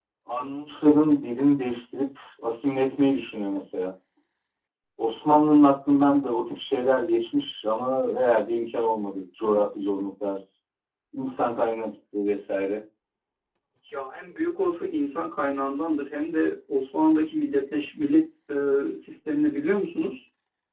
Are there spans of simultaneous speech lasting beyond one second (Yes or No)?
No